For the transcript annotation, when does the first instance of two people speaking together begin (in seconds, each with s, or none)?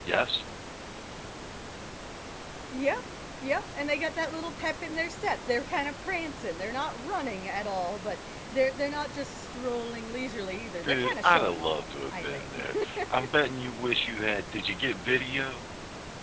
10.8 s